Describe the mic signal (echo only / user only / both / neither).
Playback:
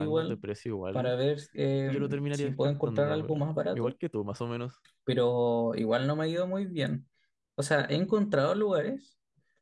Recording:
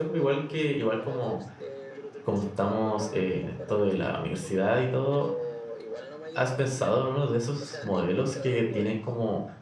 both